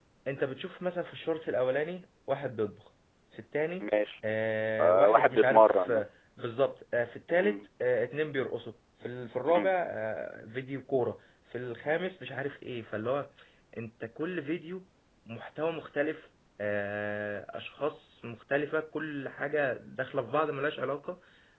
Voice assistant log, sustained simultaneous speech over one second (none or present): present